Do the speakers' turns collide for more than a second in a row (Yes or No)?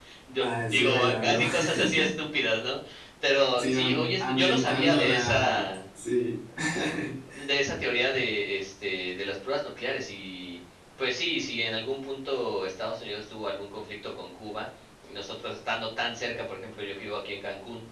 Yes